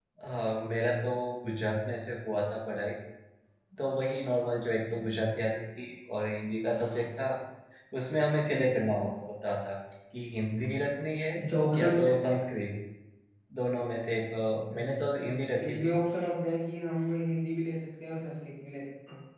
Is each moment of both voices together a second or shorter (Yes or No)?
Yes